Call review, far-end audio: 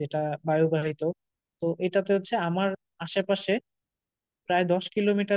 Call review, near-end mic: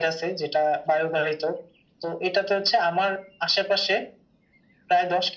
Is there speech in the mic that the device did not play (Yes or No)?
No